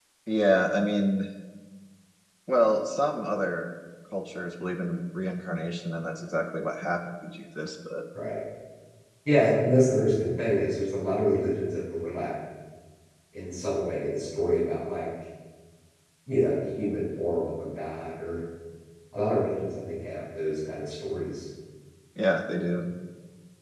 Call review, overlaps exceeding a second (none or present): none